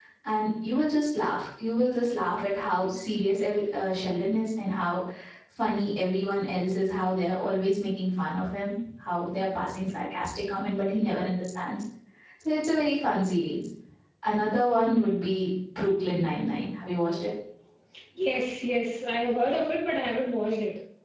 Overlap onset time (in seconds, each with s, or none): none